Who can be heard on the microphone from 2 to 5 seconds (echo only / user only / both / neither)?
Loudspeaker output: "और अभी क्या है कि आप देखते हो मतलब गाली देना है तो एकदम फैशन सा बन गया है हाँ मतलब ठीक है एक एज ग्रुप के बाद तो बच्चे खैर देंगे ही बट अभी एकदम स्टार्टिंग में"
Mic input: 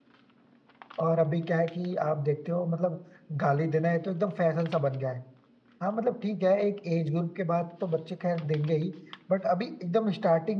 echo only